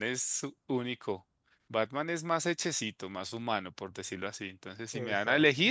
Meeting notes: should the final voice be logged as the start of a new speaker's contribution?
No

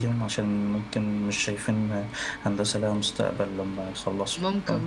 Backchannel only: No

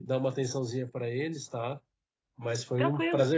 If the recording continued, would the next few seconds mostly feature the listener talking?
No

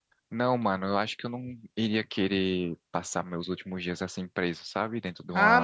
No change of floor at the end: No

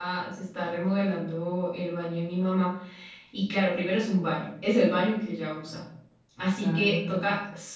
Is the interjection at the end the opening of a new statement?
No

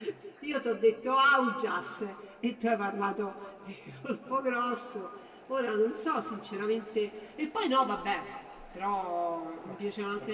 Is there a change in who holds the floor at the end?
No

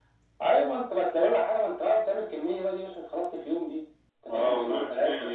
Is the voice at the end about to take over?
Yes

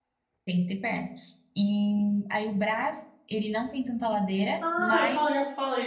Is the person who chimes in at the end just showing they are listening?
No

